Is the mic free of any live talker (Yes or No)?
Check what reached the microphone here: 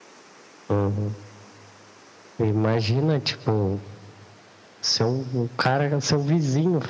Yes